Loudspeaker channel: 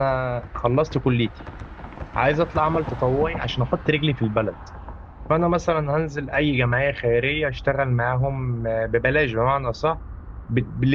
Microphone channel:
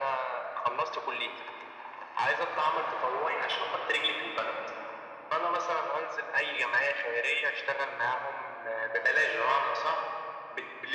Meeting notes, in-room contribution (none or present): none